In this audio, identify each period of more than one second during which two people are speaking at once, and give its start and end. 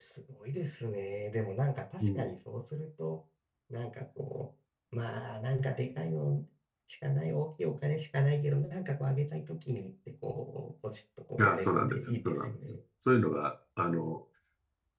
11.4-12.8

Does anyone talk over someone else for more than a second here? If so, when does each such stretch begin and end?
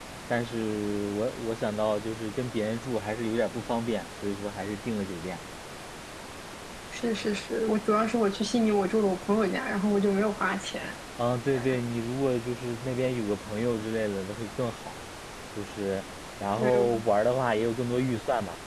none

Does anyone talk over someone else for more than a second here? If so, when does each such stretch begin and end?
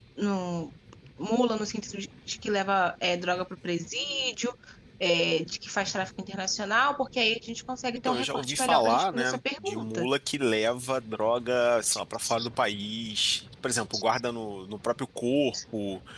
8.0-10.1

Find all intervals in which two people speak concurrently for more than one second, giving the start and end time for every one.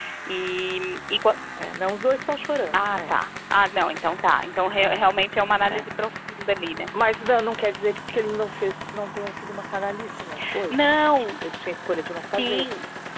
none

